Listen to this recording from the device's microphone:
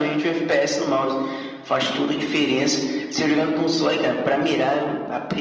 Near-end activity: none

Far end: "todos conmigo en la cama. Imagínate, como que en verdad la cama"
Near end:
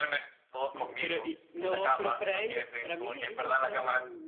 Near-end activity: present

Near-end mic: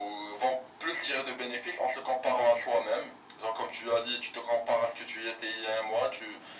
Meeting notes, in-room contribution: none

